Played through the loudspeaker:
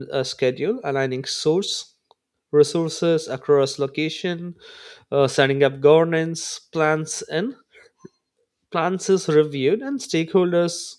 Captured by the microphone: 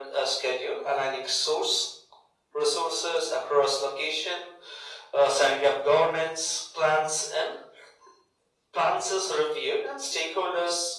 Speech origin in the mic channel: echo only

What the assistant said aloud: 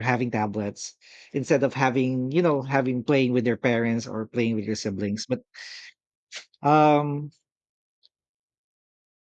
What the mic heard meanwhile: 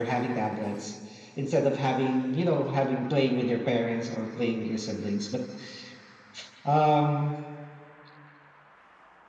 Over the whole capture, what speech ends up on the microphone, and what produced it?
echo only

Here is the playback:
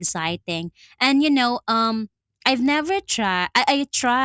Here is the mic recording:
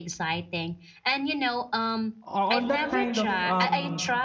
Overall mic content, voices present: both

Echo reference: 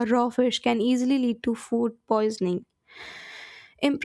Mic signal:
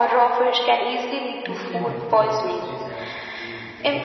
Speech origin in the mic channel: both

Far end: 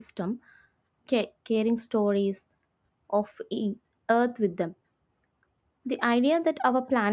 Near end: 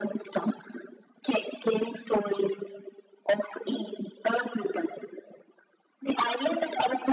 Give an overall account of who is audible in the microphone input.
echo only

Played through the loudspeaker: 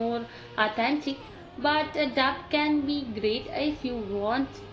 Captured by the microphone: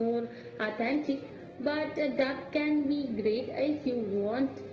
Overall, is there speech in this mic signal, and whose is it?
echo only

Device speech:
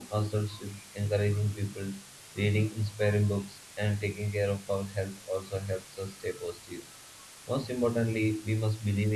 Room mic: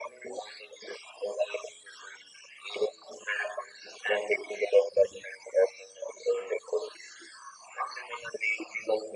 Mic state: echo only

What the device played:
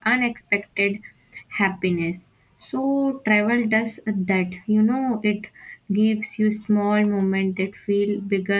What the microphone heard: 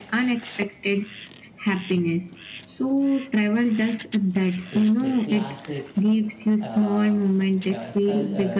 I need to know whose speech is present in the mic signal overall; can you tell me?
both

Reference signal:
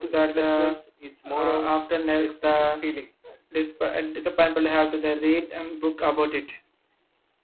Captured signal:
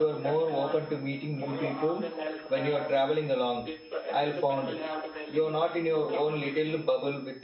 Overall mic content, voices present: both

